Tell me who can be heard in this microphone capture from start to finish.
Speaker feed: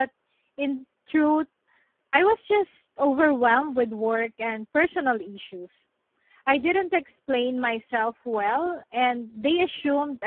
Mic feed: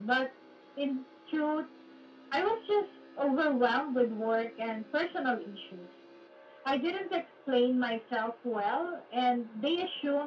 echo only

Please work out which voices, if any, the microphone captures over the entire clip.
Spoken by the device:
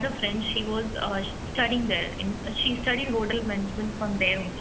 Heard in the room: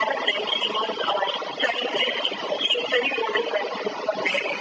echo only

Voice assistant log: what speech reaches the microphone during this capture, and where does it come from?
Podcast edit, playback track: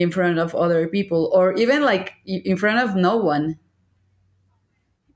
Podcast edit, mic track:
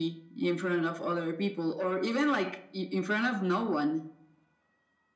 echo only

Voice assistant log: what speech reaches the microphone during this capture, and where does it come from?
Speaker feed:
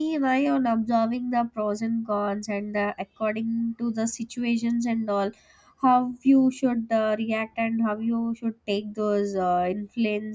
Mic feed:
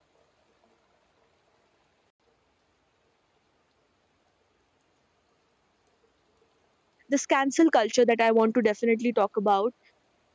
user only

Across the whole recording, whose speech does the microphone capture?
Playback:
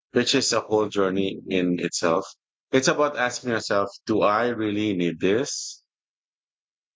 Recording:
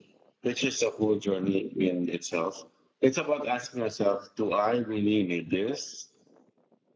echo only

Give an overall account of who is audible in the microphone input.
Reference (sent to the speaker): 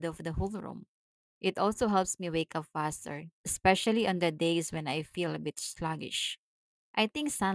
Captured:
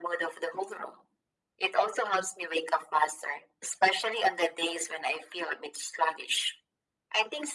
echo only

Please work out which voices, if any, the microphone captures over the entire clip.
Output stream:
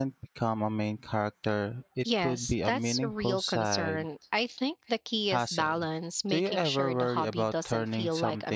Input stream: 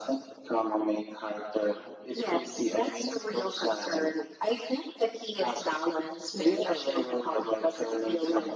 echo only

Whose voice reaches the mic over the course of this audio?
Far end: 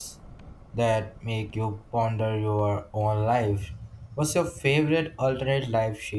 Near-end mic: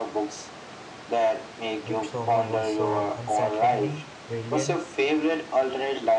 both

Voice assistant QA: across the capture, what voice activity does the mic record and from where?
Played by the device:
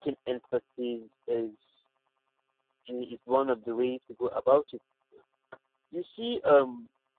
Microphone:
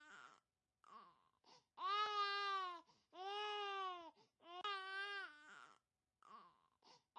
neither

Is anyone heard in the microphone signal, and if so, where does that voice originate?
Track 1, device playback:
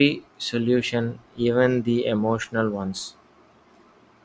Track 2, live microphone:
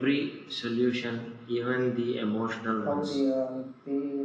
both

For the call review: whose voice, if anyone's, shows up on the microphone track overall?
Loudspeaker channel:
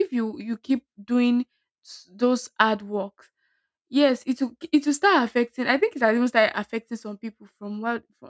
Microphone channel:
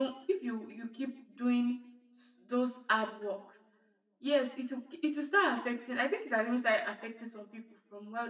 echo only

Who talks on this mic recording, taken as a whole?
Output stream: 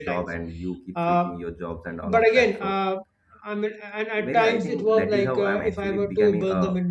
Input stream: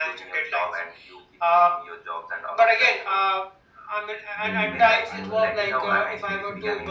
both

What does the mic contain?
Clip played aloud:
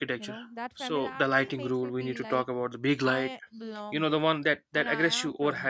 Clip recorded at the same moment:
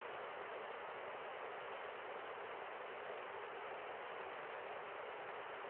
neither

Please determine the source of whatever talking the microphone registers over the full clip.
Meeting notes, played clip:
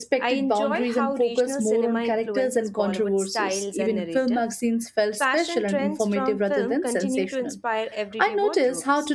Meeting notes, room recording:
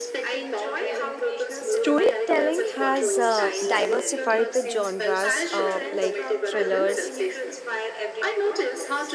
both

